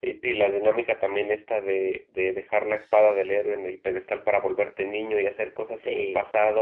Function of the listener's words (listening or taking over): listening